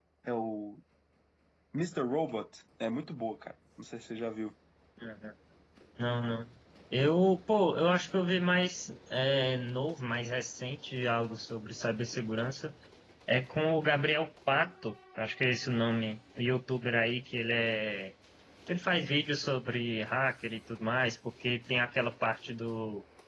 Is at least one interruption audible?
No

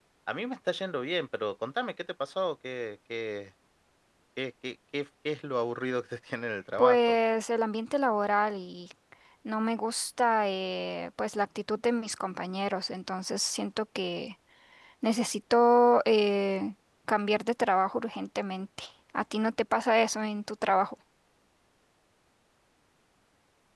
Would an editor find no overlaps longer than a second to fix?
Yes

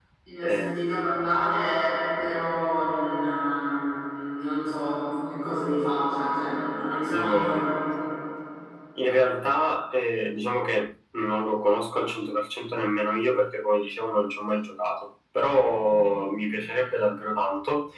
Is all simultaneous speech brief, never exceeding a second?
Yes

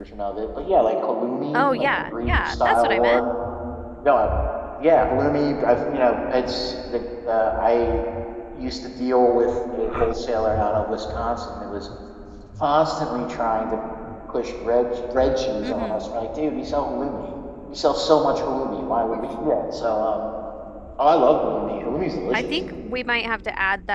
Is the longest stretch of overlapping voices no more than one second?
No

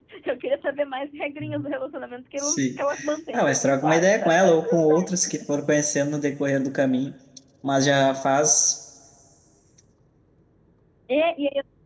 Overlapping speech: Yes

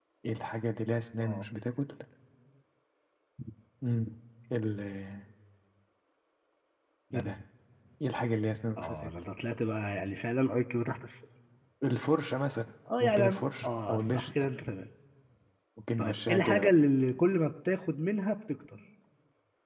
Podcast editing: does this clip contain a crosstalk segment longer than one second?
Yes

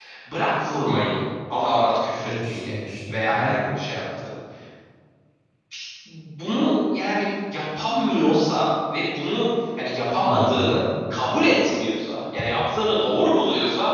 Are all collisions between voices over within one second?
Yes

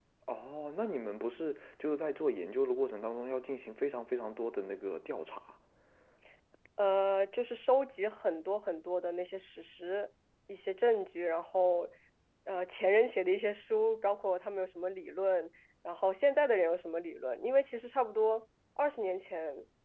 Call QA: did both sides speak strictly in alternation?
Yes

